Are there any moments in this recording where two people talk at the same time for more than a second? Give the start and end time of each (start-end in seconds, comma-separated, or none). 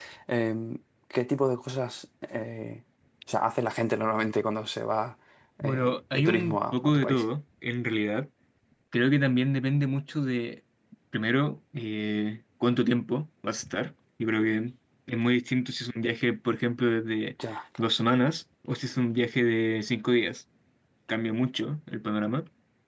5.6-7.2